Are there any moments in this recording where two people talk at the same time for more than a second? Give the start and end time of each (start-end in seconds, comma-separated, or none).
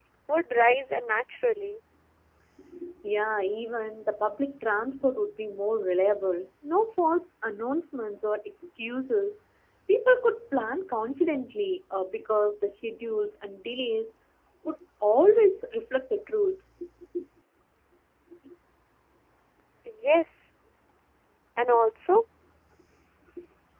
none